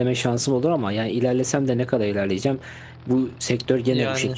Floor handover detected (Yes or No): No